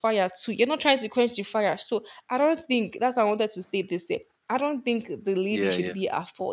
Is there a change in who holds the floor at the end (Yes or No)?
No